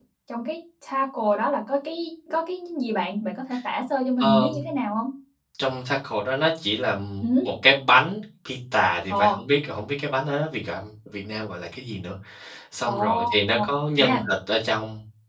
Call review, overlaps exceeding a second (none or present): none